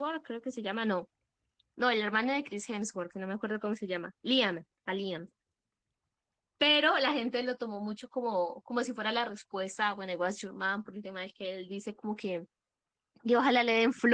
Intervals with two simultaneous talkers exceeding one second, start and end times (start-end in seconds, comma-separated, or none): none